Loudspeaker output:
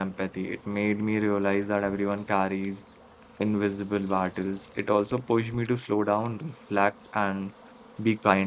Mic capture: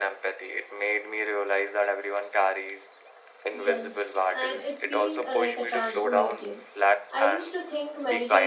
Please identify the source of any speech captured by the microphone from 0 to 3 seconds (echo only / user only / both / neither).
echo only